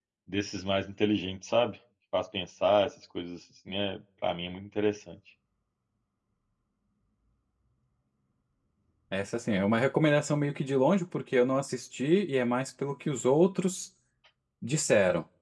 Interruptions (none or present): none